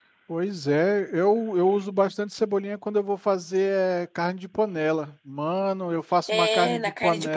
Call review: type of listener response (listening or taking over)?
taking over